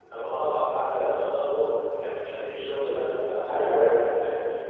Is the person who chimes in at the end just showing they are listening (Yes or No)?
No